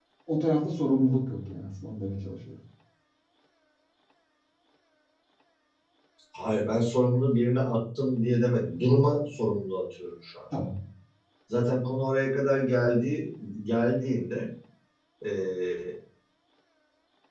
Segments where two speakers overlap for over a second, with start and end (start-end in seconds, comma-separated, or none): none